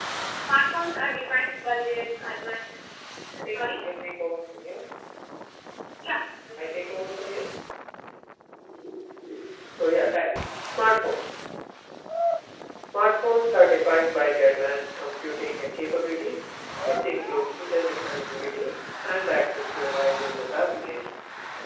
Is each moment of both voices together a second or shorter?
Yes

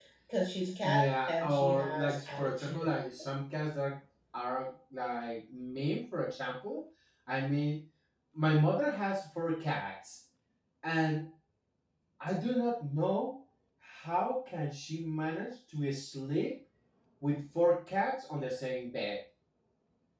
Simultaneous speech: Yes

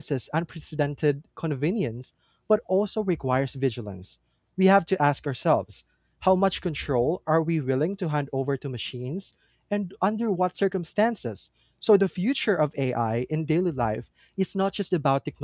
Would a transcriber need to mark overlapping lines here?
No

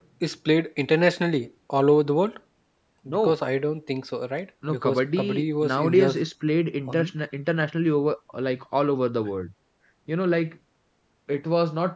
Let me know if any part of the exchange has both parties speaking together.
Yes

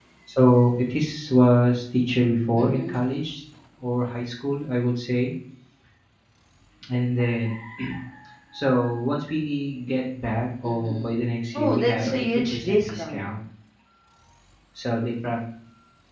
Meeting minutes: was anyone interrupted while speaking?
Yes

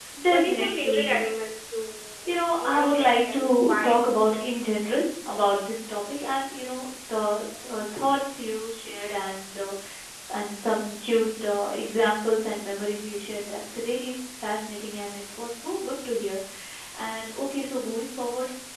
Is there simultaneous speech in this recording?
Yes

